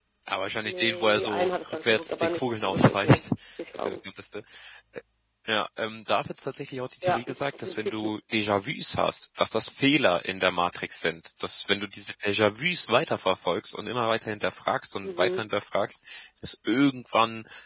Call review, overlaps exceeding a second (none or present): present